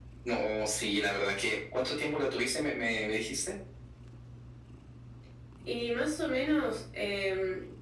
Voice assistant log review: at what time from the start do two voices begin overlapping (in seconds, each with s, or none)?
none